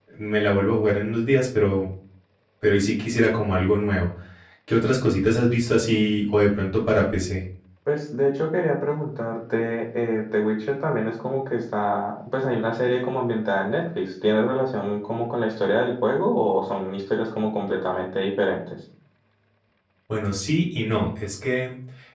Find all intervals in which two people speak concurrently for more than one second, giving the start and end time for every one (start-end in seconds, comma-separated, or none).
none